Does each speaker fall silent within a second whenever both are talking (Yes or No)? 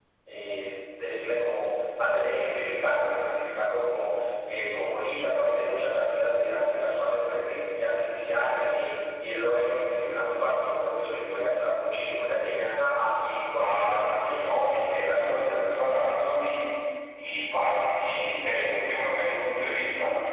No